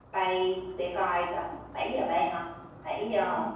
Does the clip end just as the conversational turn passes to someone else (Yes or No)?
Yes